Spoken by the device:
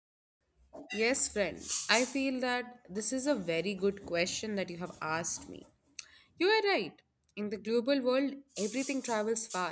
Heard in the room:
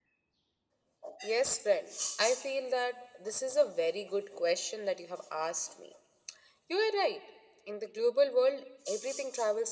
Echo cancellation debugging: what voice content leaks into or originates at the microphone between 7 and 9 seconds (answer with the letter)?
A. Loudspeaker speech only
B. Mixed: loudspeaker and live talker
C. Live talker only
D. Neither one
A